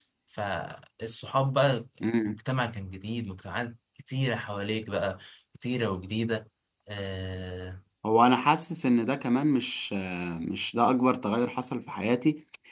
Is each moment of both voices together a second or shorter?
Yes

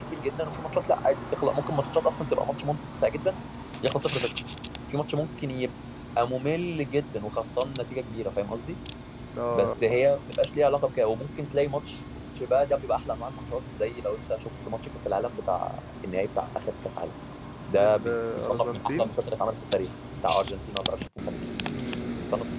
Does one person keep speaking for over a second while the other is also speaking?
Yes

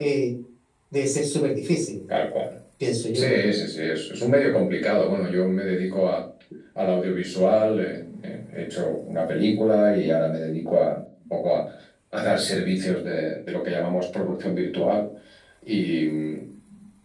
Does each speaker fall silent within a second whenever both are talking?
Yes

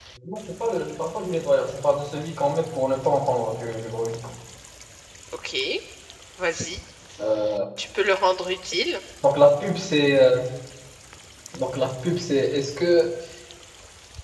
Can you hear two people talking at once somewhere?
No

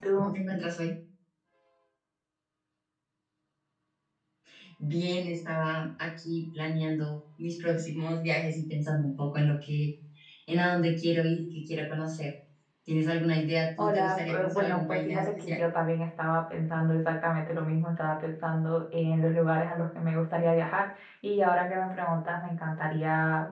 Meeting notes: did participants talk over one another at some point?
Yes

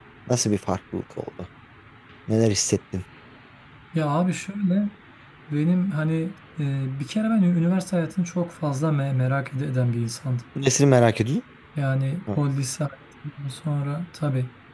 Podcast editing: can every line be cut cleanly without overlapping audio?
Yes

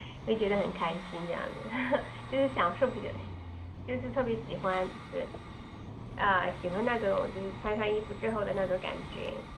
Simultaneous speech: No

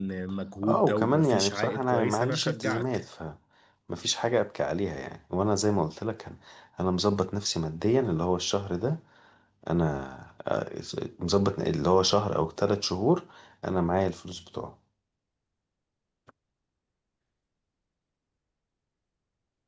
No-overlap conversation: No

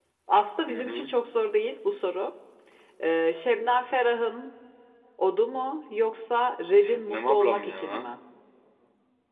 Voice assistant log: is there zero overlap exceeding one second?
No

